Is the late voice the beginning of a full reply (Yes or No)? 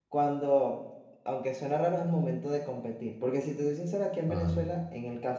No